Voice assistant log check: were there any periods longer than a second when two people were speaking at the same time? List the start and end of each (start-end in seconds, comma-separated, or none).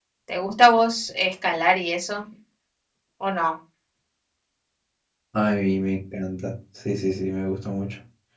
none